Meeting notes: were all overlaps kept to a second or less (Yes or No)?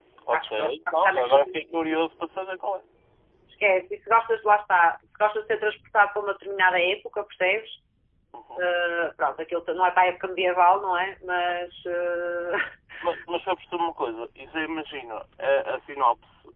No